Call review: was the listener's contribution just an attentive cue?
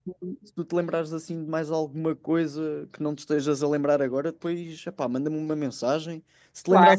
Yes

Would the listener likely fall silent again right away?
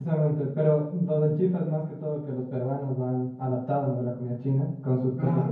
No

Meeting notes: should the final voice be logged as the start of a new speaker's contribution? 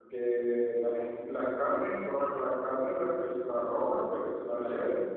No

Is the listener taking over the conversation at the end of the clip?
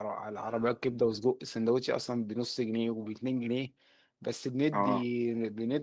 No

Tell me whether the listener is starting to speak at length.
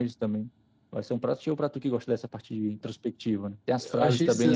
Yes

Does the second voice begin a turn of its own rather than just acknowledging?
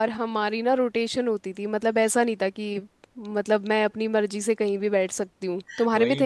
Yes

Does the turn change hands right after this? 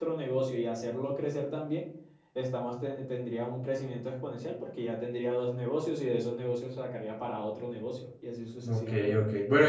Yes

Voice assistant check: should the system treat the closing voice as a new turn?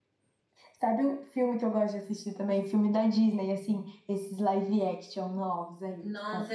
Yes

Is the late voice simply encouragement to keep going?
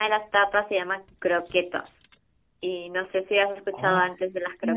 No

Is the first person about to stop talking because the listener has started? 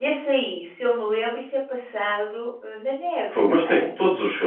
Yes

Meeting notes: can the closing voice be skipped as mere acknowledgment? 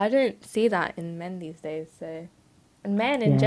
Yes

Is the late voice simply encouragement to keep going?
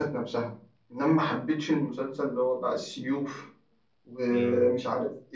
Yes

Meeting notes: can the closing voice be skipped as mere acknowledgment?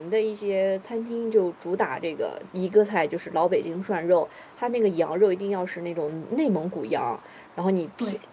Yes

